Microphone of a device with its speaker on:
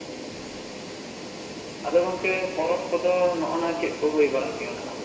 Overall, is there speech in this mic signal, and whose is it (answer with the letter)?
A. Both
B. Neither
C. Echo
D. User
C